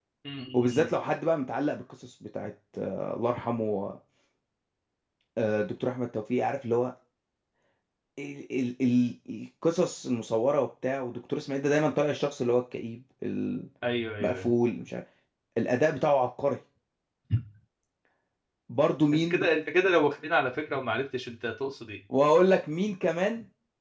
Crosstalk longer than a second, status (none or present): none